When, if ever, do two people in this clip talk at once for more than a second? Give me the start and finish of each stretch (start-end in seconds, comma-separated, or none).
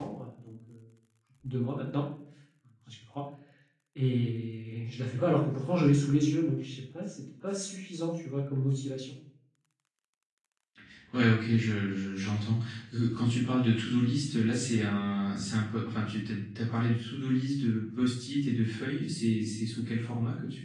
none